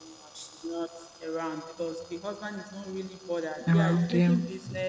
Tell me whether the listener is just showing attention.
Yes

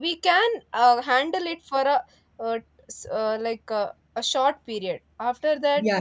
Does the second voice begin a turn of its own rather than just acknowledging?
Yes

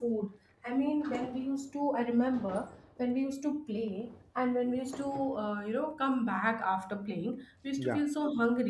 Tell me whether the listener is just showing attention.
Yes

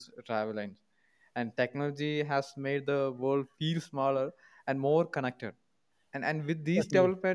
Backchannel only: Yes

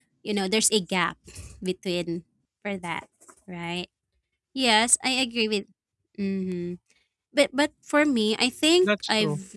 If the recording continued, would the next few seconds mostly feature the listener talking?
No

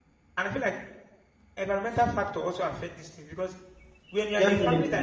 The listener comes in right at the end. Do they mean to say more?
No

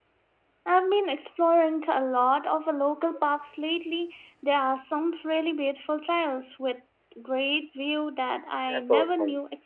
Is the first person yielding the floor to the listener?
Yes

